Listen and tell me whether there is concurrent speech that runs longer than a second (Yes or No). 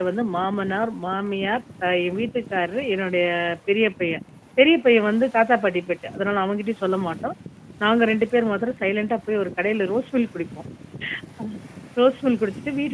No